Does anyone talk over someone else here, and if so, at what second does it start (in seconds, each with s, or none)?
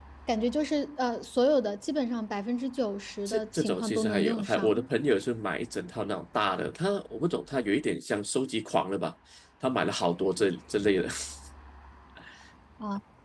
3.3 s